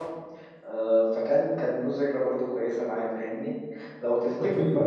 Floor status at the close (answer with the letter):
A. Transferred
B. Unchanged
B